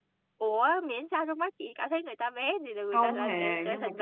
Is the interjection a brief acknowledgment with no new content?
No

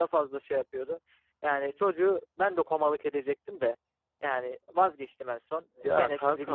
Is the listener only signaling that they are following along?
Yes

